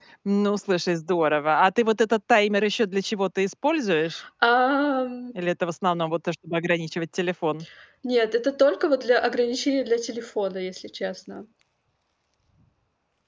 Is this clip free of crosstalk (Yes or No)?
Yes